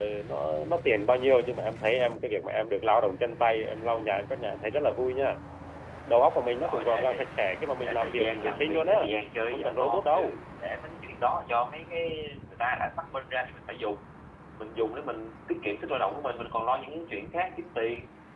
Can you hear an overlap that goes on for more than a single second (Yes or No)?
Yes